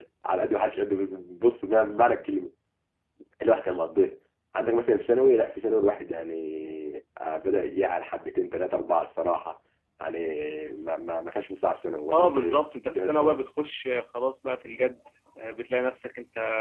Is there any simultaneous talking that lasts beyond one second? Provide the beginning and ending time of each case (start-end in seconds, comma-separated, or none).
12.1-13.4